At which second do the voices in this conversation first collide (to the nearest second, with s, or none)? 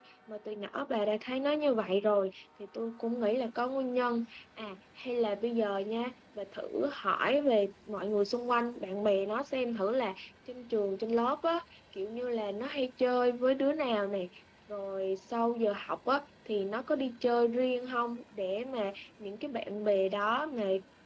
none